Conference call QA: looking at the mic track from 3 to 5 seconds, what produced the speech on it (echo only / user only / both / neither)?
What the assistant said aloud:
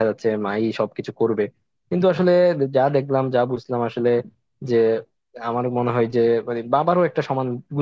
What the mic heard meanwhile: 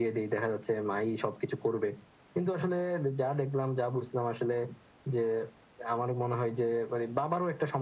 echo only